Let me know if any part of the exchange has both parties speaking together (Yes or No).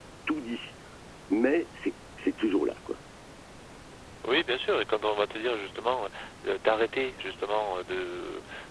No